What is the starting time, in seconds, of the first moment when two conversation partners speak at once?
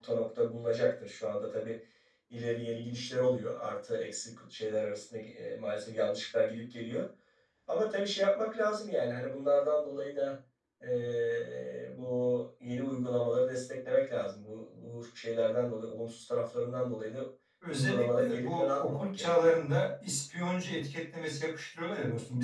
17.7 s

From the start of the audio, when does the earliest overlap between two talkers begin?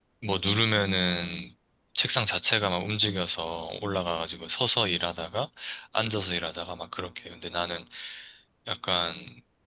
none

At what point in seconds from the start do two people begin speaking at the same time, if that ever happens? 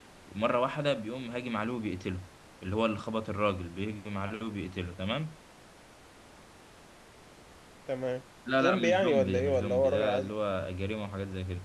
8.6 s

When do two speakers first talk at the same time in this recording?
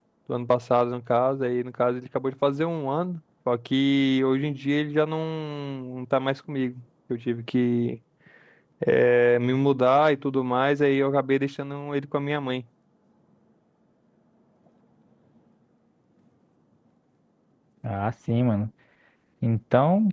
none

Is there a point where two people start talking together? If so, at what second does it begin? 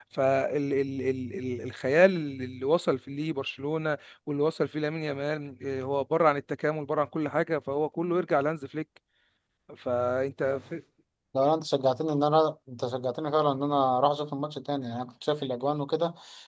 none

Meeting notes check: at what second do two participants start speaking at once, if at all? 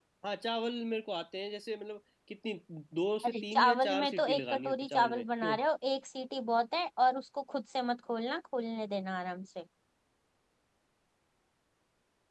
3.2 s

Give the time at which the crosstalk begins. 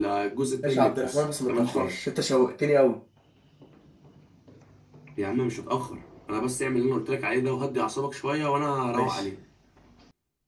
0.6 s

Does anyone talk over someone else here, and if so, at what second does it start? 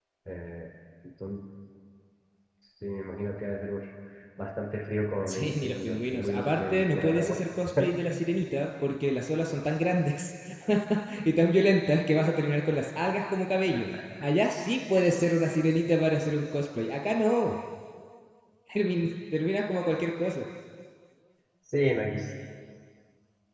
5.3 s

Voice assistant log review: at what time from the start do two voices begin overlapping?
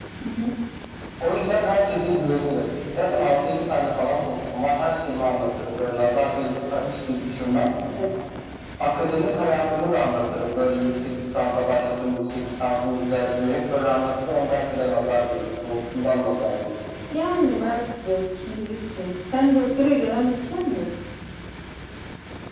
none

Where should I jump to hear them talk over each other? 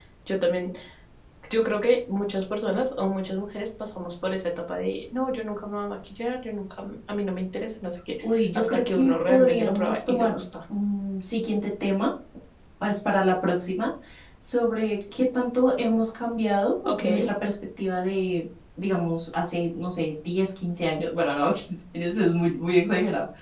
8.6 s

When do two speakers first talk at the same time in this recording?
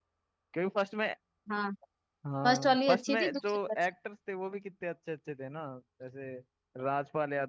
2.5 s

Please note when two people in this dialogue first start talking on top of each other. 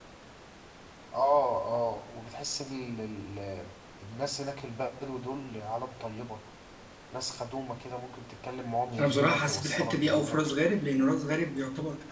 9.0 s

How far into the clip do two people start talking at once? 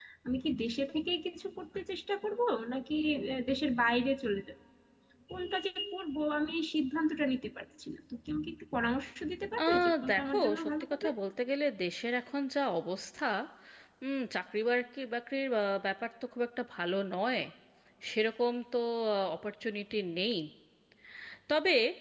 9.6 s

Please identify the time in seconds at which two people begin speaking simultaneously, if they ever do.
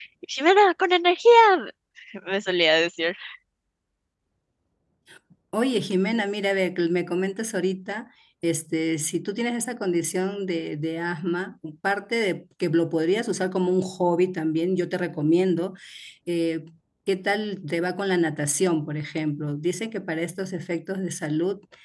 none

